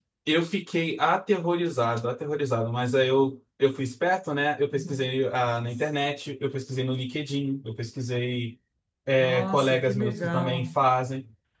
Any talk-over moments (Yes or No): Yes